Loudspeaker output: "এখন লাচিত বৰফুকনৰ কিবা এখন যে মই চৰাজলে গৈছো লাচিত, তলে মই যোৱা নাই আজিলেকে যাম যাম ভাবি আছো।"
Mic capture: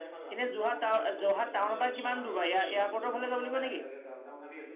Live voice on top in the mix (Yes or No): Yes